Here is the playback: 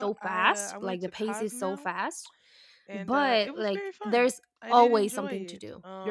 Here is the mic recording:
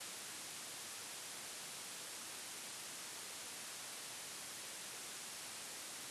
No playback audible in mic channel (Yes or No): Yes